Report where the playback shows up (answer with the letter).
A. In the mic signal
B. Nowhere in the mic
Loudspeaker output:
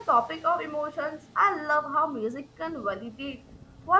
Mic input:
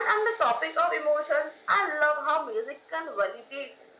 A